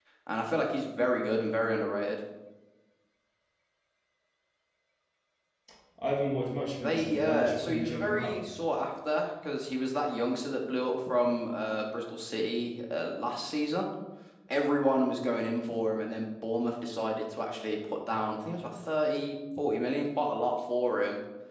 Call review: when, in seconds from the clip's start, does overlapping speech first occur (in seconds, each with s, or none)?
6.8 s